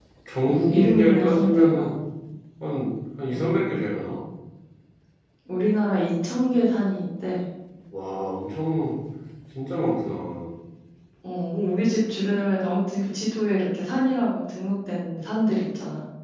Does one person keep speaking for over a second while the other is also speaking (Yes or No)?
Yes